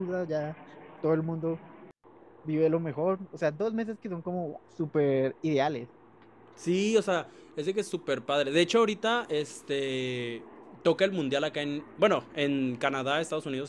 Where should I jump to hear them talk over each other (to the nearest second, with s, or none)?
none